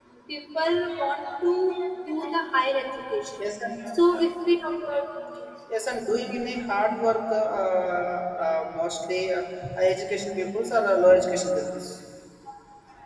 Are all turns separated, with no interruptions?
Yes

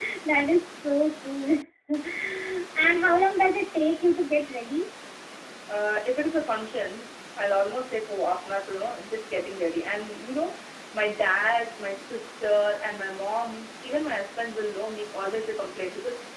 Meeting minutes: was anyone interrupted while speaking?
No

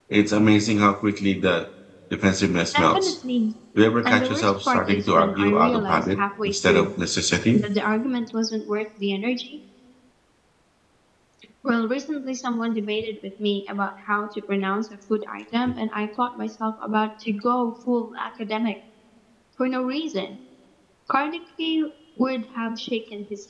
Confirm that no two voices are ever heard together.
No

